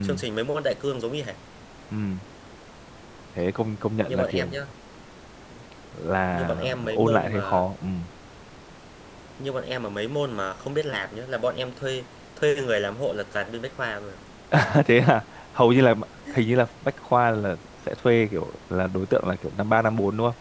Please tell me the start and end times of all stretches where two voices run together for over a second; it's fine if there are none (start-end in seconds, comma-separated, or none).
6.3-7.7